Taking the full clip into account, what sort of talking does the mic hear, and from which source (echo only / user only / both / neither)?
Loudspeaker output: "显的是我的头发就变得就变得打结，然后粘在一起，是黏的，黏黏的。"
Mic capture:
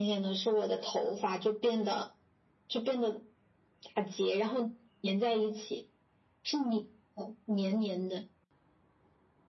echo only